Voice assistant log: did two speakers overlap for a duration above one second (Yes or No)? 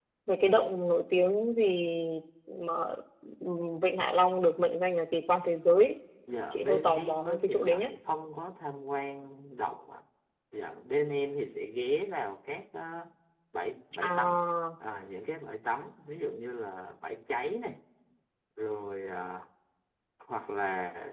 Yes